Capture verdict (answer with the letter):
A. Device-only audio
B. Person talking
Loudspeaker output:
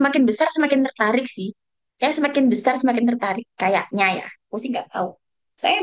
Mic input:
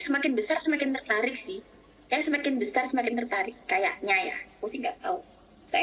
A